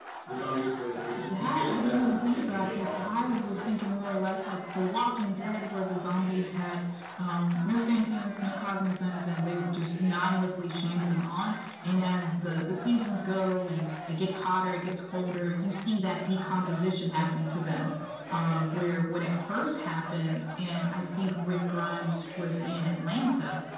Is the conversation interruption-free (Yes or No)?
No